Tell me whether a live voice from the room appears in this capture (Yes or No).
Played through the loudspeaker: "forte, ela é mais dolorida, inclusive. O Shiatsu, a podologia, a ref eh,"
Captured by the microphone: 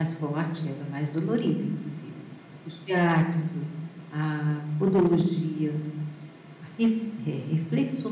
No